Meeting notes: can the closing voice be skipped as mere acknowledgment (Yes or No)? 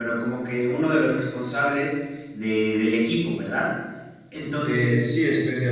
No